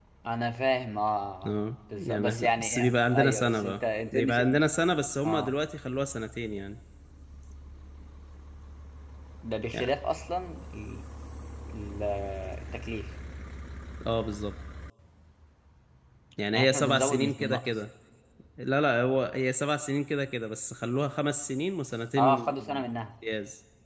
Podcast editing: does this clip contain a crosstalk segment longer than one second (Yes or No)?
Yes